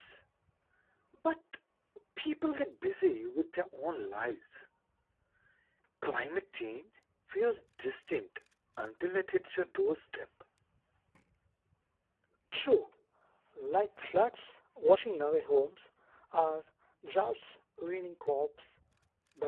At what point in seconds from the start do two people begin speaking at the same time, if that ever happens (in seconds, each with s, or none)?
none